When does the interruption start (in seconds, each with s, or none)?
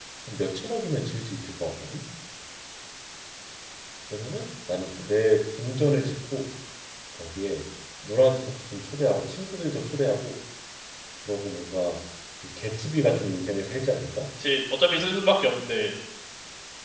none